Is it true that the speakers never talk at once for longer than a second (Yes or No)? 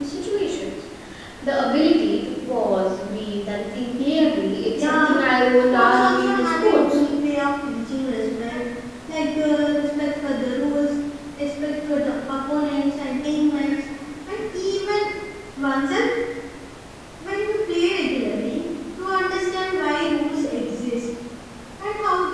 No